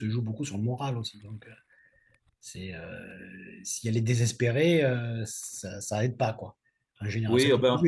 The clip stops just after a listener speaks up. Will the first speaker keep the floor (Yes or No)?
No